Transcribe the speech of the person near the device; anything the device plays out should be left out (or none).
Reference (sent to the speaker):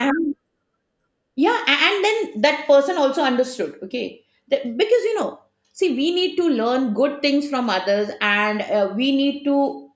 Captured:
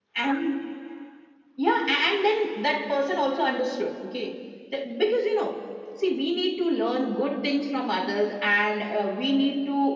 none